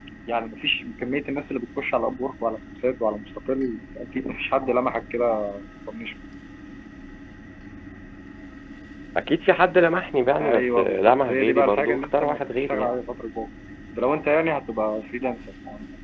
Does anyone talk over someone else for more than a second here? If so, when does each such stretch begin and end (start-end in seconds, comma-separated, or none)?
10.4-12.9